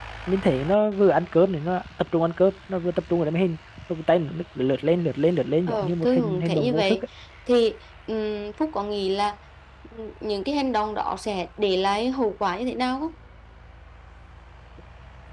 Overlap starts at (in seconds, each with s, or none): 5.7 s